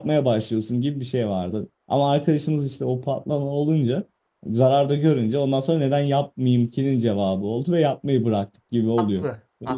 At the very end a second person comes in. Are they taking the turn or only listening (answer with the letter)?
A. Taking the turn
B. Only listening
A